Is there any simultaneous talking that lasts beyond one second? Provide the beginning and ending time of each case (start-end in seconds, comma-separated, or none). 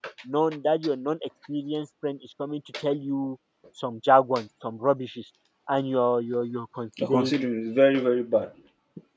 none